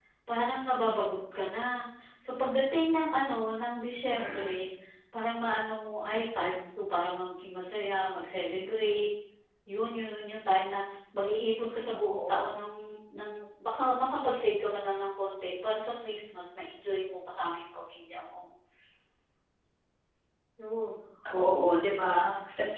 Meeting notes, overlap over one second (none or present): none